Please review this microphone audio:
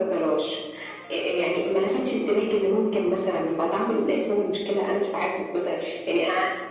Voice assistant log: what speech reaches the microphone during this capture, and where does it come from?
echo only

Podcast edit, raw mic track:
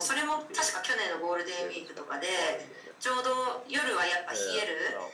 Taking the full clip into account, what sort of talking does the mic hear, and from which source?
both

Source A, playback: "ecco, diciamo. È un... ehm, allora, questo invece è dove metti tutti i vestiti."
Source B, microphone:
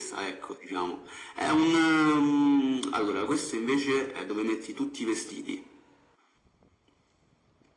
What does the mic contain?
echo only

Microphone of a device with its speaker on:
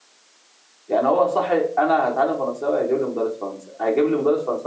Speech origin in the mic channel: user only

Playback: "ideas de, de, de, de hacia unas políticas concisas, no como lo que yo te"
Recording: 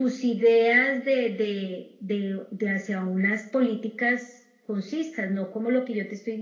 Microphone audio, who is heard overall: echo only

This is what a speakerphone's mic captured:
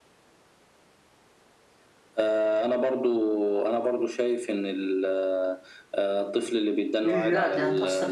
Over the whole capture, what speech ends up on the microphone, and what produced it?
both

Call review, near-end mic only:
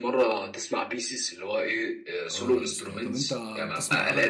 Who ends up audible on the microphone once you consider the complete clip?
both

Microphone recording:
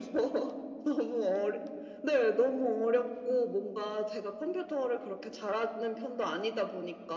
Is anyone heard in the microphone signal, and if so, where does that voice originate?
echo only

